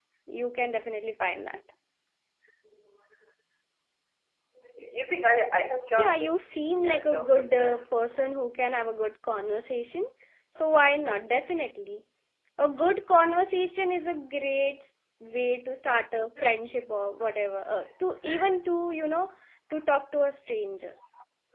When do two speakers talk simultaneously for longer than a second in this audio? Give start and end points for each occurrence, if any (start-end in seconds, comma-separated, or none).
6.0-7.8